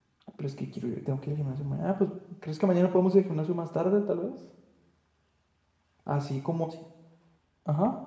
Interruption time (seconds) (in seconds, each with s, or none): none